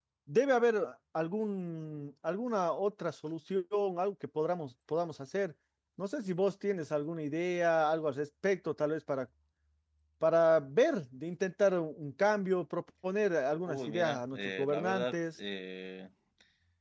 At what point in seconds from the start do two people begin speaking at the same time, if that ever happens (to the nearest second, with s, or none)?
14 s